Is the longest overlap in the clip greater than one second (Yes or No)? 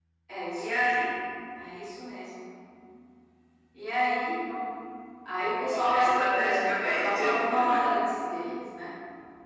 Yes